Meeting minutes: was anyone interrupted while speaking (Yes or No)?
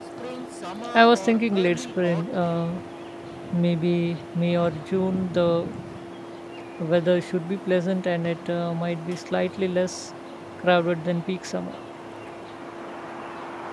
Yes